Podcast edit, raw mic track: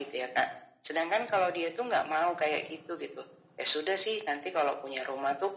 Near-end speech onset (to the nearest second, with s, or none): none